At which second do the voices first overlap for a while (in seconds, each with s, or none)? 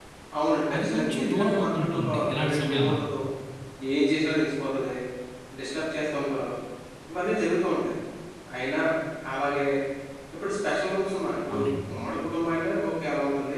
0.8 s